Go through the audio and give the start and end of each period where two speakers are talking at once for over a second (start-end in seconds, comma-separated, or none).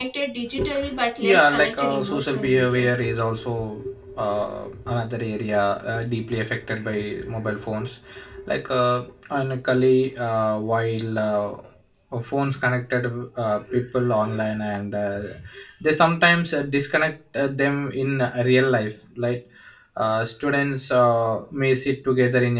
1.3-3.0